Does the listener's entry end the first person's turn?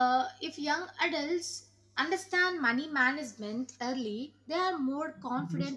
No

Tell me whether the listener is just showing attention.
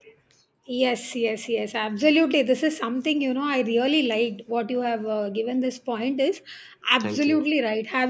Yes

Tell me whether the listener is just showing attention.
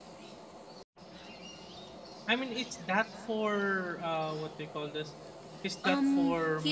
No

